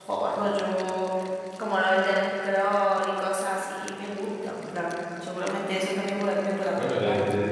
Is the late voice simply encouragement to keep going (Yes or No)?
No